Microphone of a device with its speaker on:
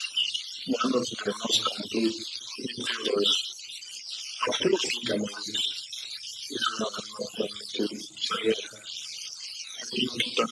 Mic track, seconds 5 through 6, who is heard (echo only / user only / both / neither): echo only